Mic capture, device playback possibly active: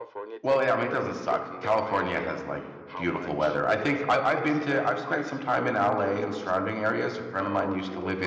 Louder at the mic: user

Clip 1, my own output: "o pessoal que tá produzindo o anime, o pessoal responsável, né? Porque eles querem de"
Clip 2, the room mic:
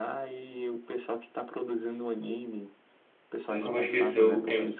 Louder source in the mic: user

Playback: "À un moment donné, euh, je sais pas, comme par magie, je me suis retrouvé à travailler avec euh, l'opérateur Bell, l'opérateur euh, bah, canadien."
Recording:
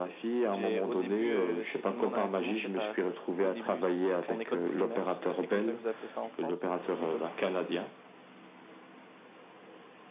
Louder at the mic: echo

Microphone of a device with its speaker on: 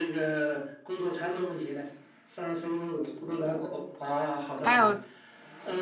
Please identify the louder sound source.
user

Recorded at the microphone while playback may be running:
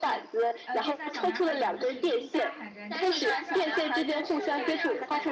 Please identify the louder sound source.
echo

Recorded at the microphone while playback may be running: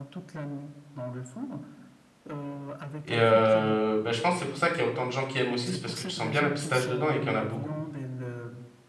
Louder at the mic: user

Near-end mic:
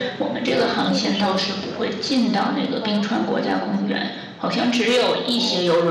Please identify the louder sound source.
echo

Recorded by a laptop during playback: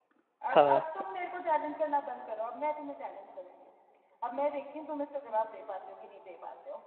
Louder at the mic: user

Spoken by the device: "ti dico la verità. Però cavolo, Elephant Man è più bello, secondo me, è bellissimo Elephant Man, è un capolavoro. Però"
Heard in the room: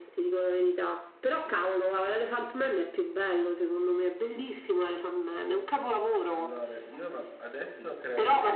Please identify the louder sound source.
echo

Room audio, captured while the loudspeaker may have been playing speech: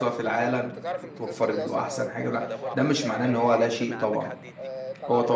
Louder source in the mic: user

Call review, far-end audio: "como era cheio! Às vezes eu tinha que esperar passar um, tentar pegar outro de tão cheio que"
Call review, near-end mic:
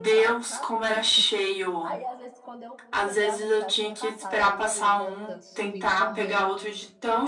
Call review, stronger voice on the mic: echo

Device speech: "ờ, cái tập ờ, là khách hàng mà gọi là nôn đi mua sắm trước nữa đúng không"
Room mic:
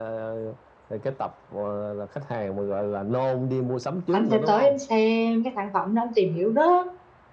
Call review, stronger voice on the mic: user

